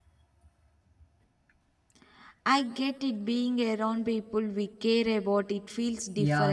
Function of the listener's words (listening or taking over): taking over